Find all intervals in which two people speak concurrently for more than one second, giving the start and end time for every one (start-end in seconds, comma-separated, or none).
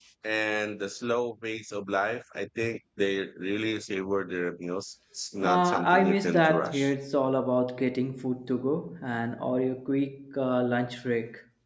5.4-6.9